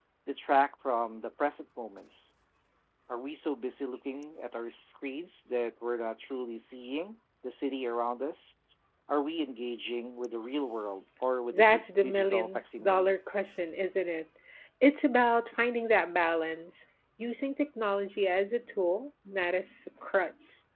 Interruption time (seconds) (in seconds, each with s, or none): 11.5 s